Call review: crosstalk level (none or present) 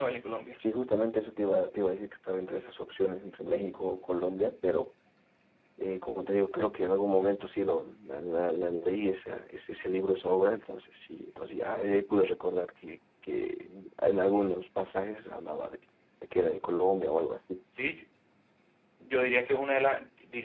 none